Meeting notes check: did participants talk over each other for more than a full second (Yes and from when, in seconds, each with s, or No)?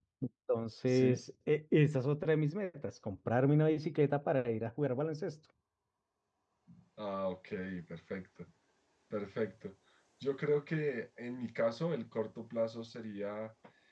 No